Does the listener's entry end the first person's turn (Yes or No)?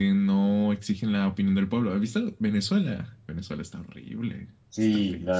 Yes